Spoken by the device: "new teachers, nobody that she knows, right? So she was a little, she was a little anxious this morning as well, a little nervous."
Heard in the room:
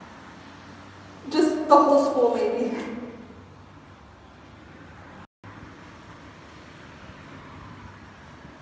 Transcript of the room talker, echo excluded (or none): Just the whole school, maybe.